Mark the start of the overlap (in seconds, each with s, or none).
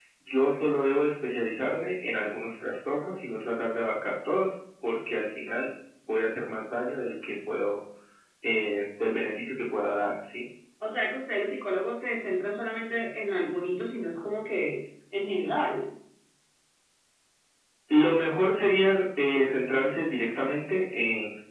none